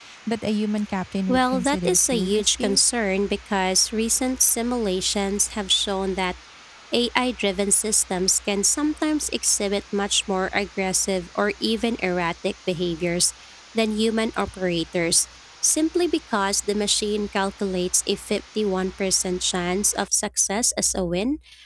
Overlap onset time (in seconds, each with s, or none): 1.3 s